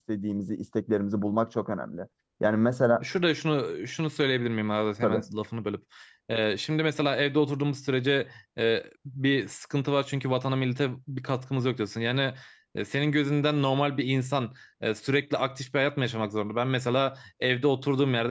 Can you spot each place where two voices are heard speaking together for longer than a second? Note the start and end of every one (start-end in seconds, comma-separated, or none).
none